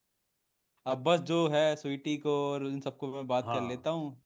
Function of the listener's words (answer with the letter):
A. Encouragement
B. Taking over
B